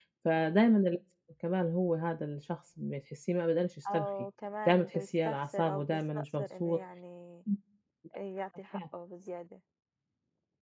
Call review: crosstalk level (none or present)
present